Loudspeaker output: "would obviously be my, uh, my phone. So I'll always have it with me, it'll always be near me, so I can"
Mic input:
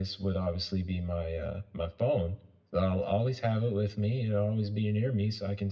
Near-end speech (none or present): none